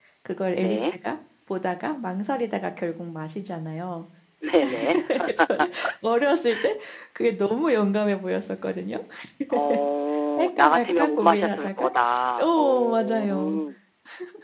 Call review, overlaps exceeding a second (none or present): present